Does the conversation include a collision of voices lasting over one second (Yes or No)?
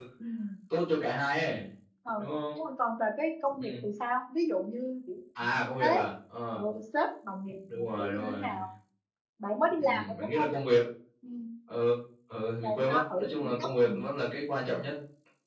Yes